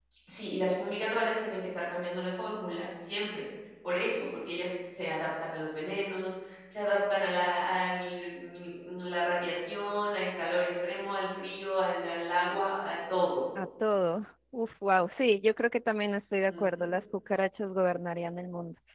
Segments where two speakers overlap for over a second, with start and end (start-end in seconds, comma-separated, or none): none